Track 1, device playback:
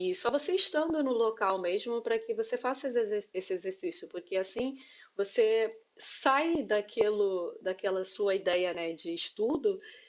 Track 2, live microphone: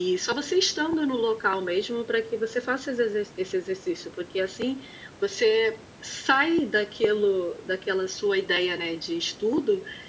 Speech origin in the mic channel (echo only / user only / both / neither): echo only